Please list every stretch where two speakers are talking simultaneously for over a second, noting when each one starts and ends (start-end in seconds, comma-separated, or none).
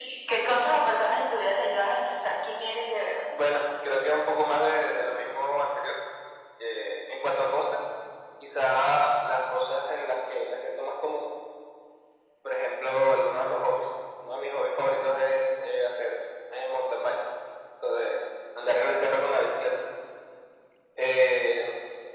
none